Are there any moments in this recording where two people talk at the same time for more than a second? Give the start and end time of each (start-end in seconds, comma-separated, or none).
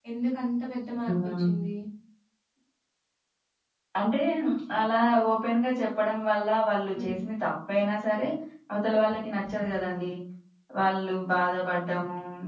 none